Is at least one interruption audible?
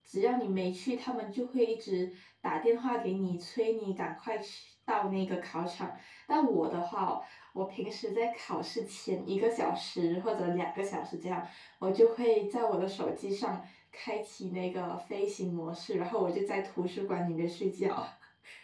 No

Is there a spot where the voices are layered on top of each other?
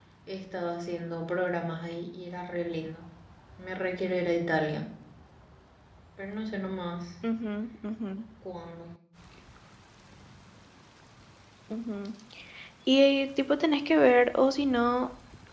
No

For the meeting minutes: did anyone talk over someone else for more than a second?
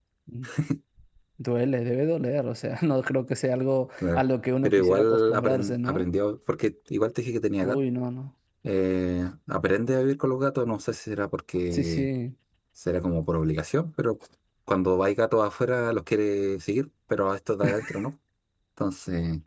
Yes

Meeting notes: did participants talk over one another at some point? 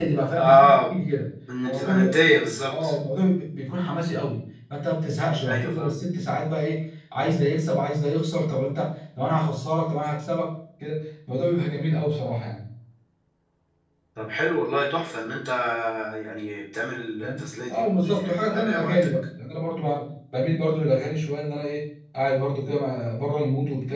Yes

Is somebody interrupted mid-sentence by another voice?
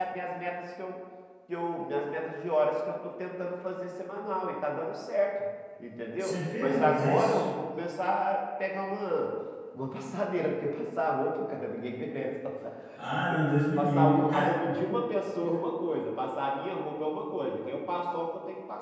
Yes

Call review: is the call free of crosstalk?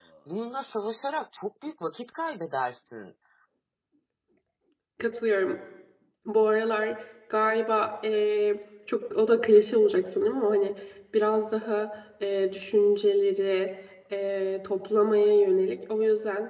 Yes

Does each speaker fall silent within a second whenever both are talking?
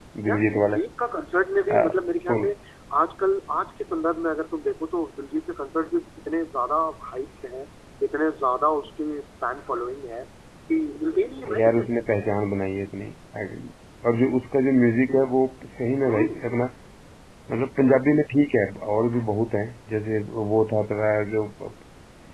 Yes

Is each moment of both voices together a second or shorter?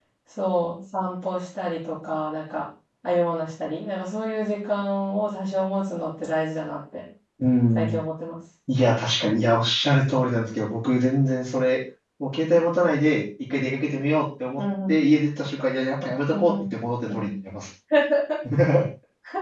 Yes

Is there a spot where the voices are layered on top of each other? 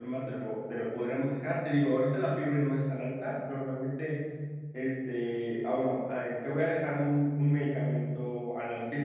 No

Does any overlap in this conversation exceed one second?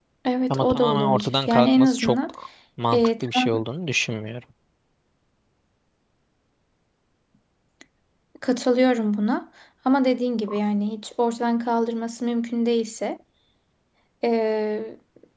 Yes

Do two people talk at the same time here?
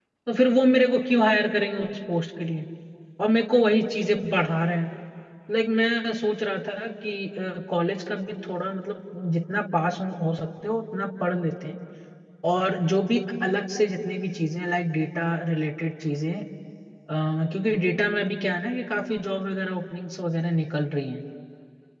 No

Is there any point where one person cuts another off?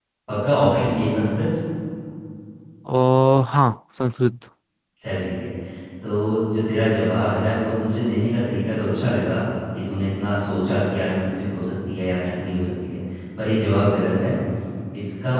No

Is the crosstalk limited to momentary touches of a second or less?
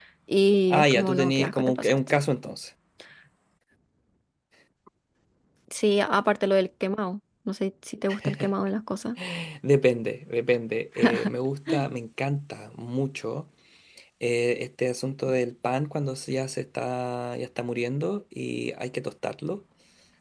No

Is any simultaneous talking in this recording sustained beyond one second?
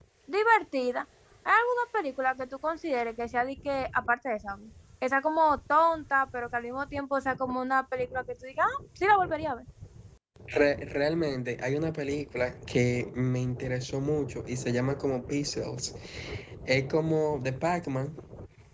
No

